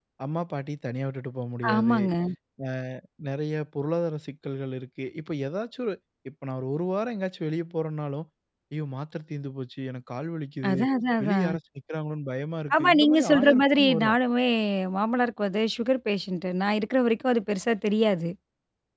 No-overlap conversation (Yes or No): No